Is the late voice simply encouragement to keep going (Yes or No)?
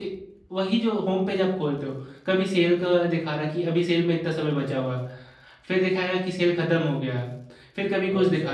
Yes